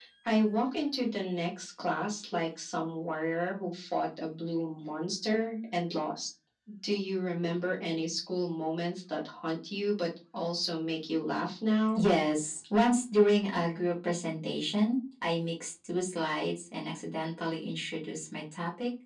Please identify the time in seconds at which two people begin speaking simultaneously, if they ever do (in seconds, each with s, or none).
none